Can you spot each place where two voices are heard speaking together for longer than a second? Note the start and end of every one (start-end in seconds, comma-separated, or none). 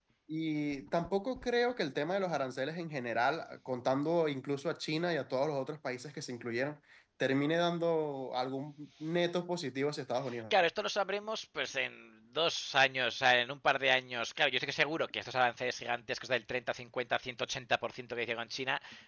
none